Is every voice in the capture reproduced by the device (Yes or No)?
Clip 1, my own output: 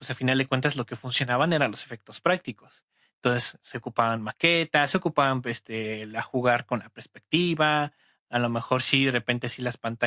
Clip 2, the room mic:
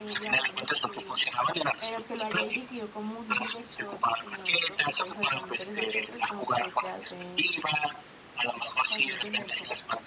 No